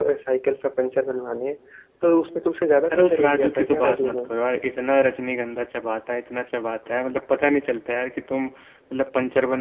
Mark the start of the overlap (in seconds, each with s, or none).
2.9 s